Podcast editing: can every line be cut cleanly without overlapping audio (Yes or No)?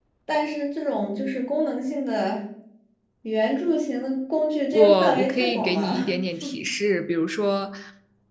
No